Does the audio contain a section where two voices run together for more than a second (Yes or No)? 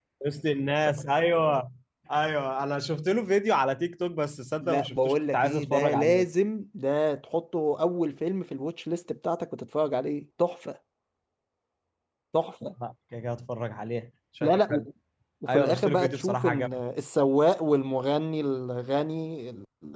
Yes